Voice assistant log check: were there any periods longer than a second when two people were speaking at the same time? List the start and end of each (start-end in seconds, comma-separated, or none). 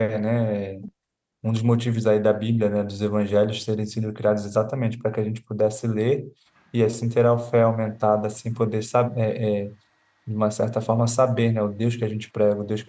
none